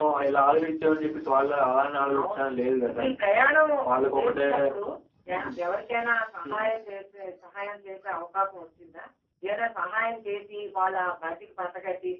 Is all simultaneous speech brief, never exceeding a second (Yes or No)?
Yes